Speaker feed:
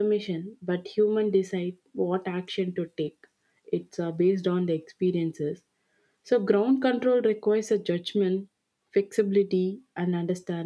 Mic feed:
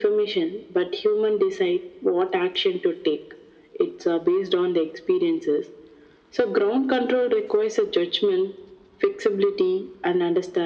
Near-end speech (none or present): none